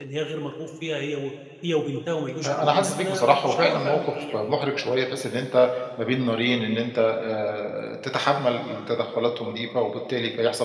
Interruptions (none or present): present